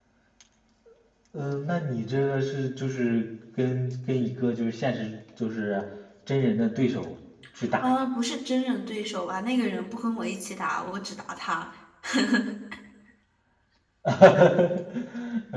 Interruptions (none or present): none